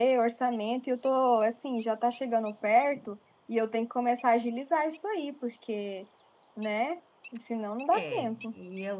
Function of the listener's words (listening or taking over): taking over